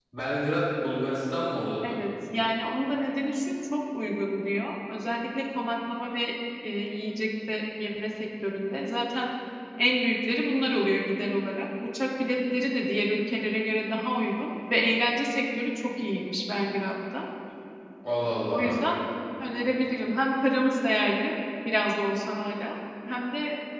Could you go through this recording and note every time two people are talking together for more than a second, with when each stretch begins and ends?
none

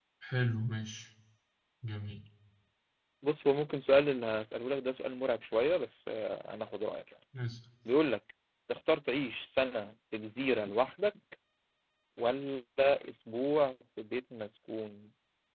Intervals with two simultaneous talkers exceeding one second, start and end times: none

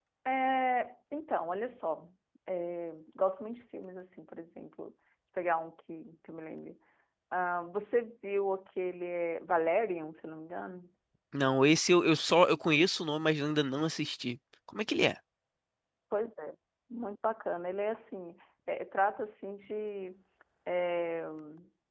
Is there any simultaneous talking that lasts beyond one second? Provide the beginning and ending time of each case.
none

